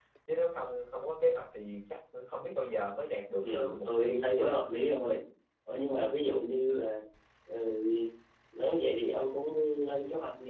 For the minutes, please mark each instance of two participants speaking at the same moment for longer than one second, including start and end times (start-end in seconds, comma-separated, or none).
3.4-4.6